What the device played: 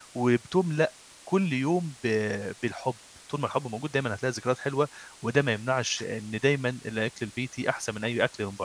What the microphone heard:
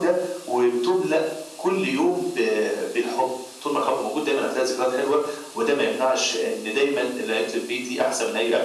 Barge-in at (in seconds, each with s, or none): none